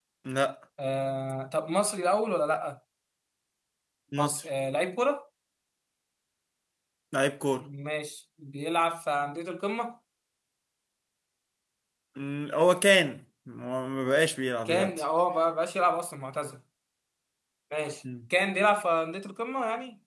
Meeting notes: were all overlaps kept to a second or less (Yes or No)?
Yes